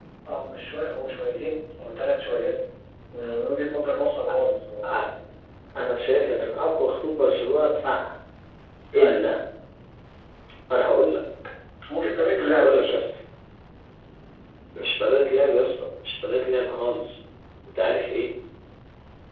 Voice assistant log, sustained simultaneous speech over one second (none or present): none